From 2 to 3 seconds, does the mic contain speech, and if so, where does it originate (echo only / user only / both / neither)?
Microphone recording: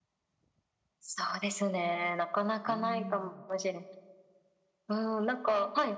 both